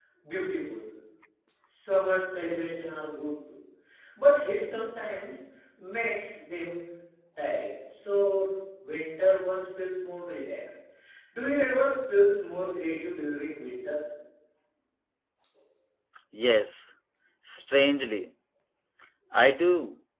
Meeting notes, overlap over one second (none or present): none